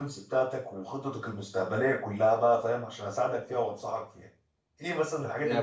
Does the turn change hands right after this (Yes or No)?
Yes